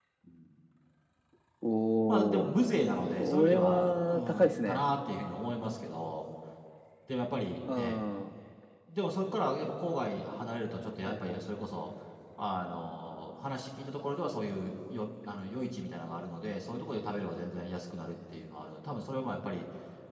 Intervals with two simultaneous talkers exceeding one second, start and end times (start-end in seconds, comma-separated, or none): 3.2-4.8